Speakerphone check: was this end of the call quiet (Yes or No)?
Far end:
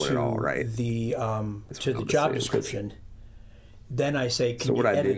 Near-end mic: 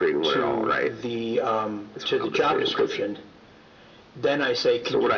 Yes